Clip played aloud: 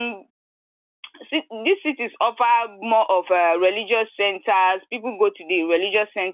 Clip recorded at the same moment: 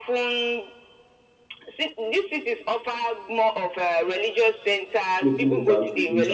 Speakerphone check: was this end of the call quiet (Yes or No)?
No